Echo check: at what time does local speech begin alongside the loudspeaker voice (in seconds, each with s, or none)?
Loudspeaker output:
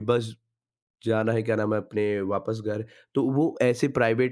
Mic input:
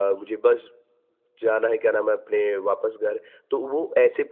none